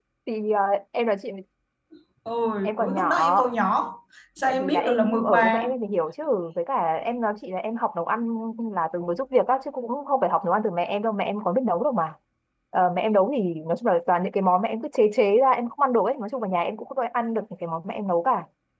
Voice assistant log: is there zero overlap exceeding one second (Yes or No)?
No